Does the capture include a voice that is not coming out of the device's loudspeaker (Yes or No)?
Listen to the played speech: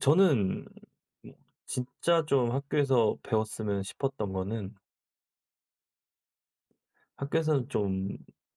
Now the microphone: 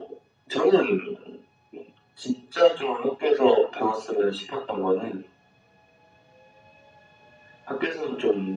No